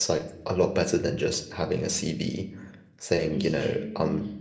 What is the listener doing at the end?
listening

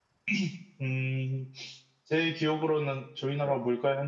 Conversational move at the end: listening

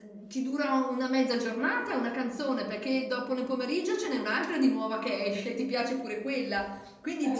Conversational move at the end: listening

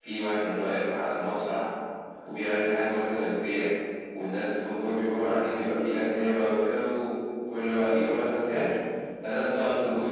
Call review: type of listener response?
listening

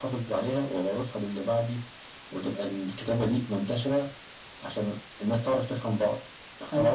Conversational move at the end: listening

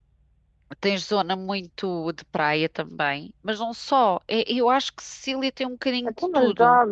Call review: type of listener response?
taking over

